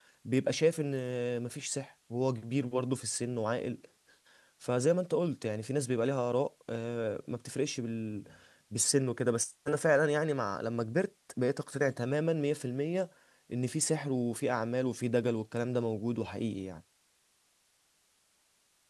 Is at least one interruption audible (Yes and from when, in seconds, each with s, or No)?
No